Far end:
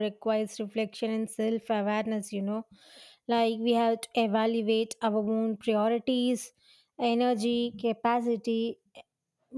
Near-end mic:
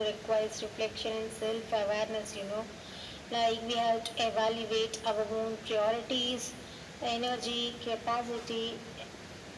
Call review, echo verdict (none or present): present